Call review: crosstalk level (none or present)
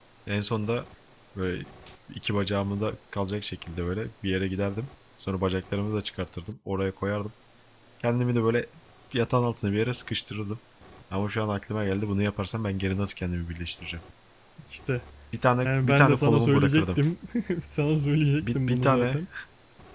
present